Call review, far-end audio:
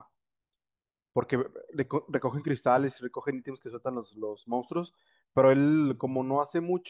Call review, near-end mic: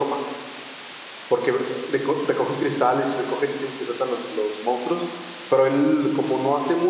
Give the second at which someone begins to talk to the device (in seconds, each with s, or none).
none